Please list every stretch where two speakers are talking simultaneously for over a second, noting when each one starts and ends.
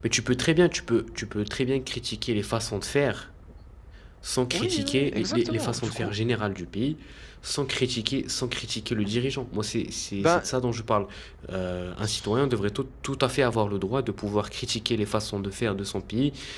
4.5-6.1

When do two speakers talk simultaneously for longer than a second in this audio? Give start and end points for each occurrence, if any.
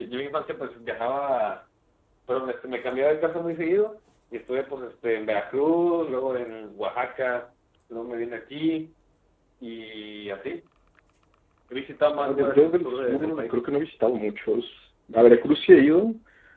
12.2-13.6

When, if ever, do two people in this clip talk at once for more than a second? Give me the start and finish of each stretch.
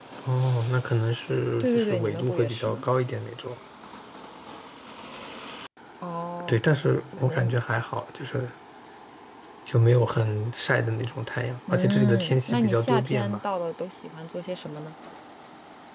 1.6-2.8, 11.7-13.4

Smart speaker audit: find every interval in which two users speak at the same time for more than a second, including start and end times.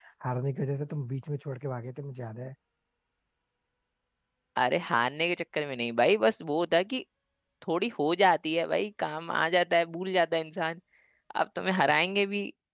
none

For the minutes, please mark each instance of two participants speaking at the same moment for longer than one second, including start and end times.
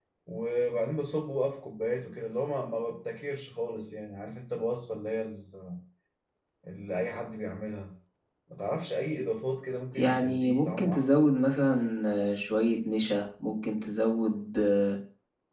10.0-11.2

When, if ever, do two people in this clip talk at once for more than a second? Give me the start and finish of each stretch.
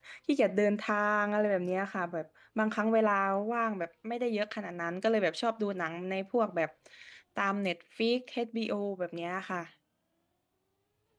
none

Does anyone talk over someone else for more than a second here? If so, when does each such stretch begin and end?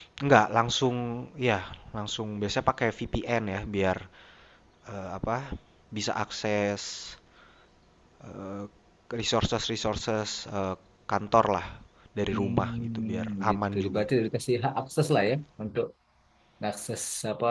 12.3-14.0

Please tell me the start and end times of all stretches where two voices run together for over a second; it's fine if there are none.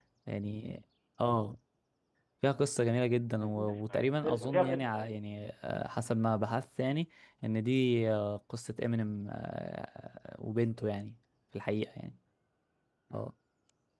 3.4-5.2

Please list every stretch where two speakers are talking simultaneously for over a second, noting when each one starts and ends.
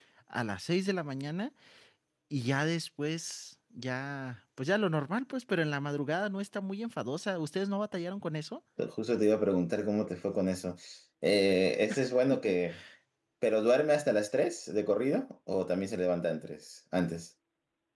none

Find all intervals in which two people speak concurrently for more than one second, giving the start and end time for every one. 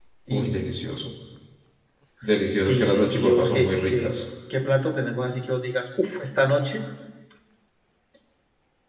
2.5-4.2

